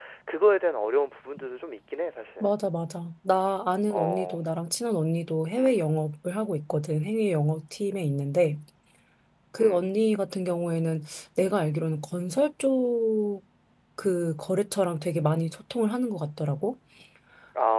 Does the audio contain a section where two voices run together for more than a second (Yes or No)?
No